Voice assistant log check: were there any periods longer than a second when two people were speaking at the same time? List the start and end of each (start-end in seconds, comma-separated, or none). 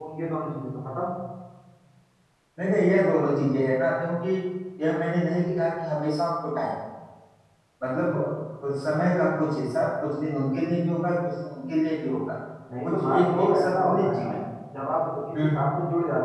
12.8-14.3